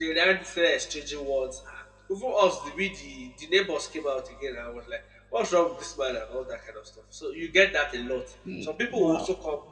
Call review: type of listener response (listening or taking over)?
listening